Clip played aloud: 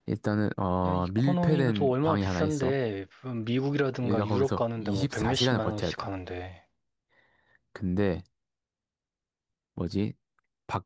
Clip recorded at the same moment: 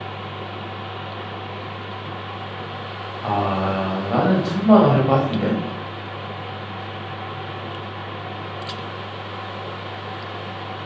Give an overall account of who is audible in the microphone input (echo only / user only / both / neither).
user only